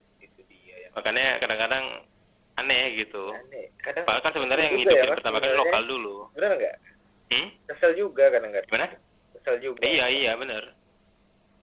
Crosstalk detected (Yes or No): Yes